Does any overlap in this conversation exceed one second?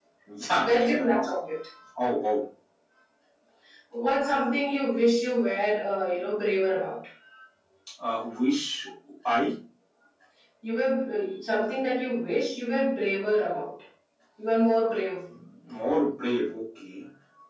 No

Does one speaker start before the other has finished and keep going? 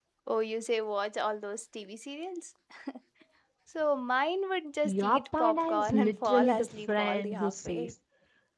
Yes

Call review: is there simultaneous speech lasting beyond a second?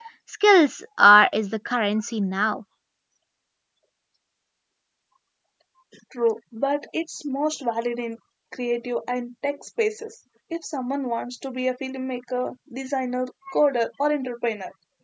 No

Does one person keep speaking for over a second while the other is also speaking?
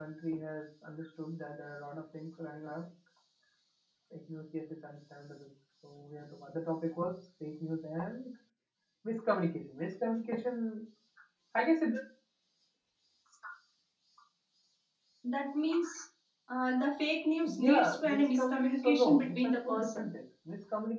Yes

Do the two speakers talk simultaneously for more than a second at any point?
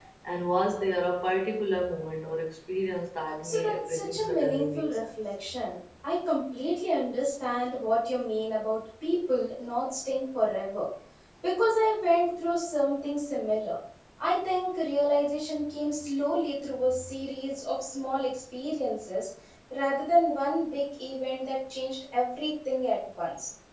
Yes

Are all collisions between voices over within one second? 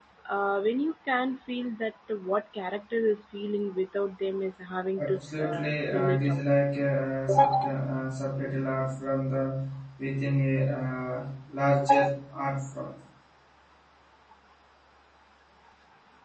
No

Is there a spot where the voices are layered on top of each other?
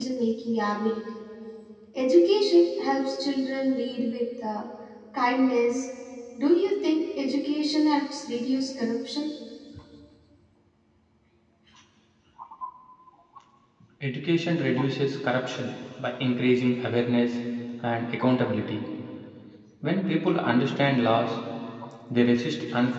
No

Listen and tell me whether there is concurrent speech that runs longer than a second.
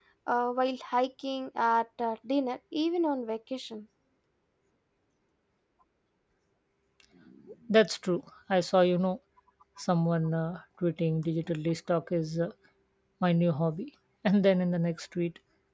No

